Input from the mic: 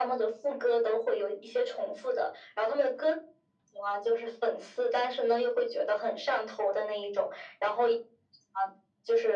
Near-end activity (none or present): none